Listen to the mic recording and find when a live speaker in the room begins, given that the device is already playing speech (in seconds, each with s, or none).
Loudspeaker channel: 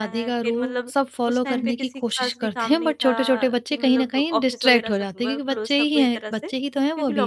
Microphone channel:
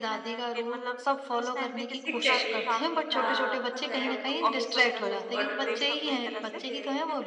2.1 s